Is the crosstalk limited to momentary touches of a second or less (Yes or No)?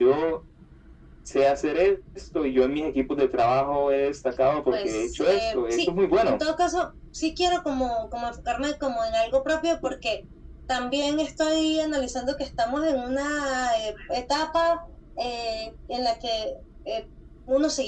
No